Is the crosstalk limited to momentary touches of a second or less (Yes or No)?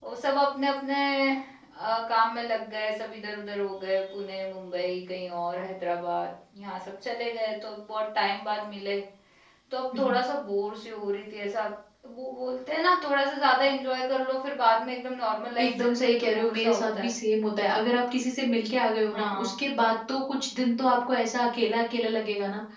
No